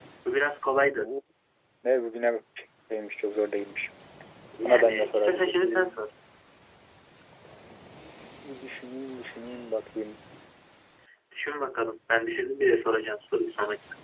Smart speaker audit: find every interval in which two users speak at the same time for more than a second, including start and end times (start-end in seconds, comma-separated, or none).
4.6-6.0